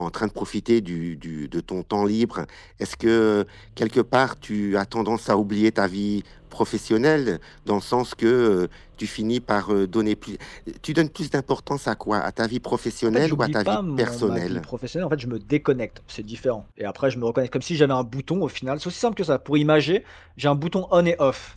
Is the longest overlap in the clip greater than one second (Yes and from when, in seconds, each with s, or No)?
Yes, from 13.1 s